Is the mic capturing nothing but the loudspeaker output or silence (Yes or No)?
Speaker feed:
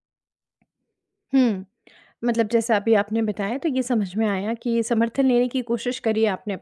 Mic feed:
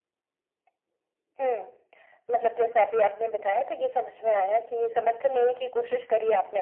Yes